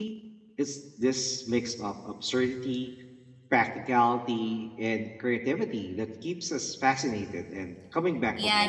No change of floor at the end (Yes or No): No